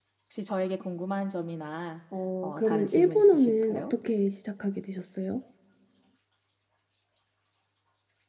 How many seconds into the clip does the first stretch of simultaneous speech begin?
2.4 s

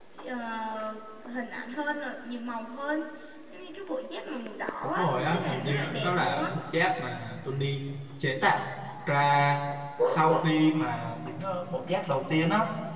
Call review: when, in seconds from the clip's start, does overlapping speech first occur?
4.8 s

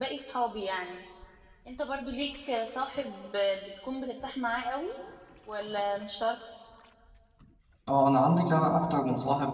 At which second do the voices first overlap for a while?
none

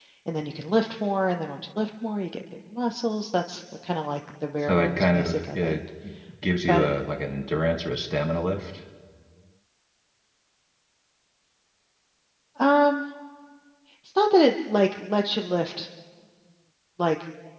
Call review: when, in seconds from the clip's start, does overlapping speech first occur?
4.6 s

